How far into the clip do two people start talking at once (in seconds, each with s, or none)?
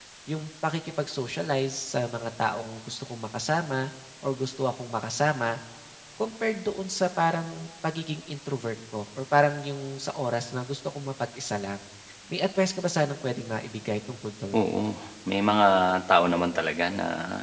none